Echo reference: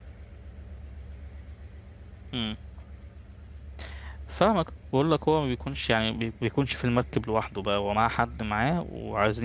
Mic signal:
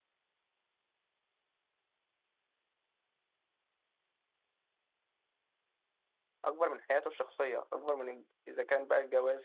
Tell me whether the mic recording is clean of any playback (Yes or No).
Yes